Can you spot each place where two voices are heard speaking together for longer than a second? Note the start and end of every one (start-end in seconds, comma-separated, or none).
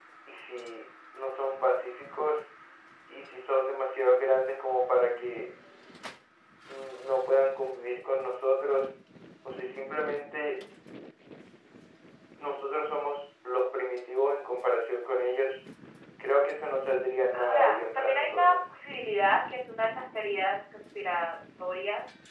17.3-18.5